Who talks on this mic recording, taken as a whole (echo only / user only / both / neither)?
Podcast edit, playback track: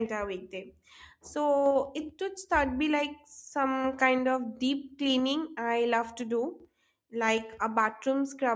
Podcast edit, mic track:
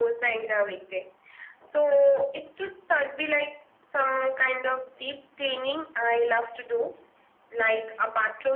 echo only